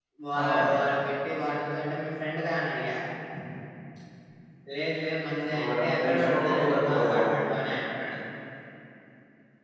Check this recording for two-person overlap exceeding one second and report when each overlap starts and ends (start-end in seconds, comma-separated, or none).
5.6-7.3